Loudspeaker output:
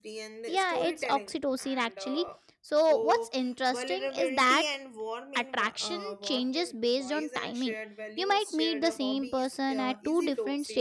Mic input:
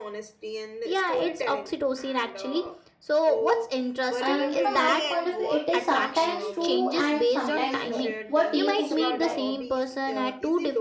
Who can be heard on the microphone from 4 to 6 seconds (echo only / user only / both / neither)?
both